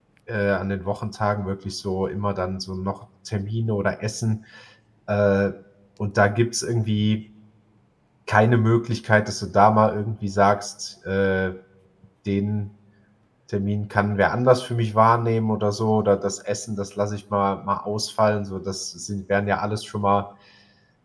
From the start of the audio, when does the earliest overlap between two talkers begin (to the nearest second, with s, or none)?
none